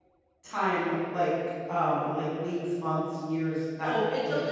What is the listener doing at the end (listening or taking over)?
taking over